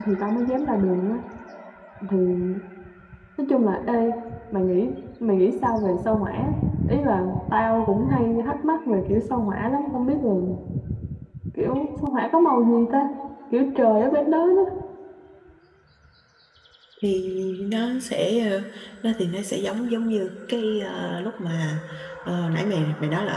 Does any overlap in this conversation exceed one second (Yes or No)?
No